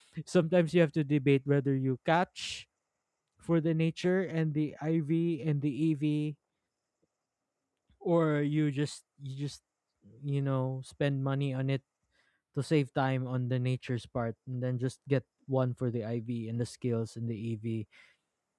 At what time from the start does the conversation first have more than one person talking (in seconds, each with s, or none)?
none